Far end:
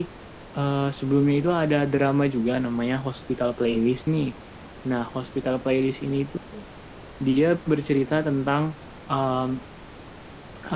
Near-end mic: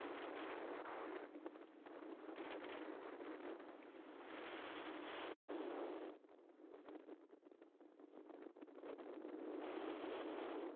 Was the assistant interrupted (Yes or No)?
No